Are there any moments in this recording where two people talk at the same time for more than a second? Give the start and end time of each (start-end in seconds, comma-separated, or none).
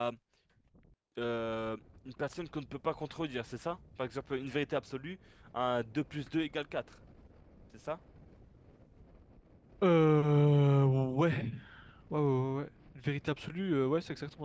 none